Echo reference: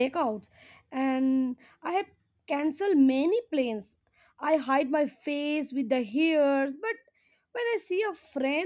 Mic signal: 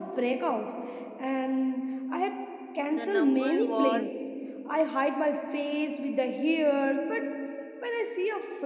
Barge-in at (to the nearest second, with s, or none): 3 s